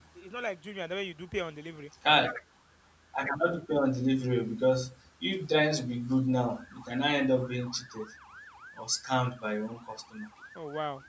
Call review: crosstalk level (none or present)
none